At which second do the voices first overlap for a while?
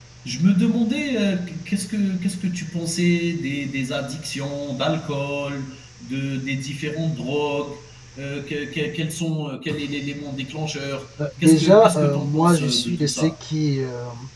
11.2 s

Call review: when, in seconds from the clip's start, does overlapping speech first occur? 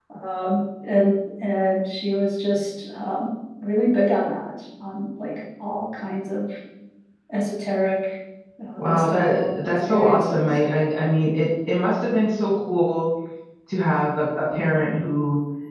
8.8 s

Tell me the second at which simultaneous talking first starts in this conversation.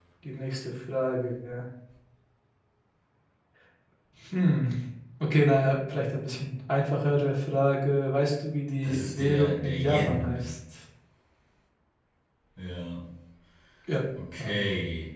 8.8 s

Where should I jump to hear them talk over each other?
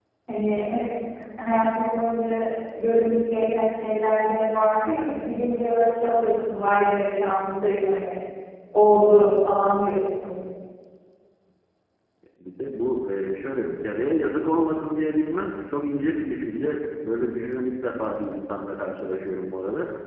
none

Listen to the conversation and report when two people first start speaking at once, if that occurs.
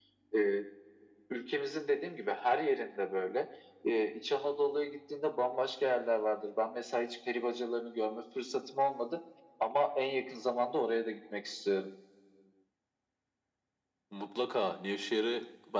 none

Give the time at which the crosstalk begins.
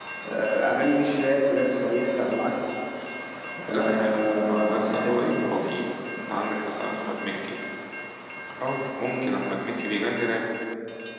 3.7 s

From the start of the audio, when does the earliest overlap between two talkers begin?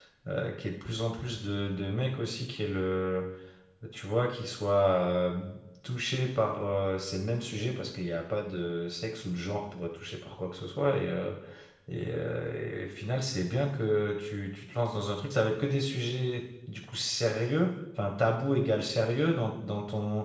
none

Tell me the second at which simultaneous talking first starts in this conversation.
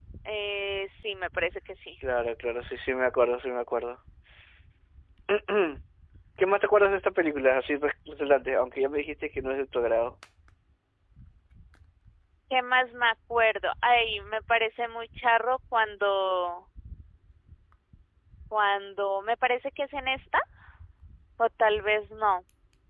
none

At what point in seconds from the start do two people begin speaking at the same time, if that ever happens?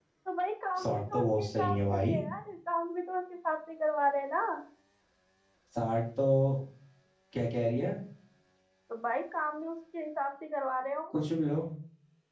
0.8 s

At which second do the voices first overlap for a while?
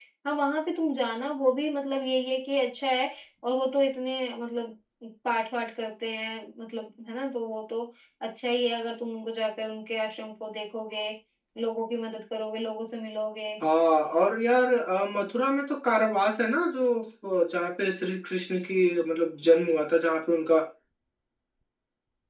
none

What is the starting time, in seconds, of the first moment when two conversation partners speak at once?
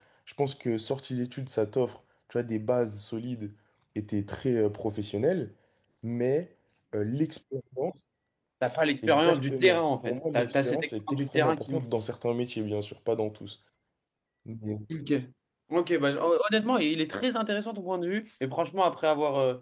9.0 s

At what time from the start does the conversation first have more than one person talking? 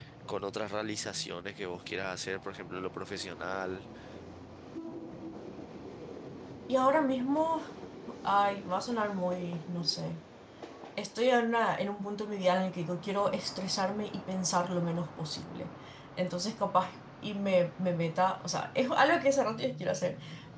none

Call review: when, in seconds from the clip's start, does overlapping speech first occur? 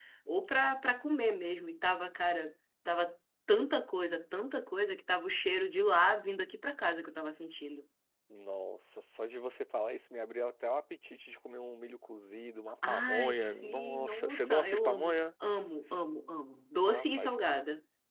12.8 s

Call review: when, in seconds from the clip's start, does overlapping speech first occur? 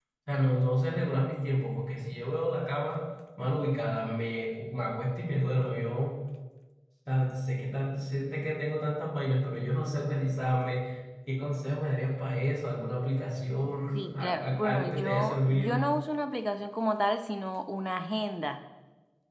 13.9 s

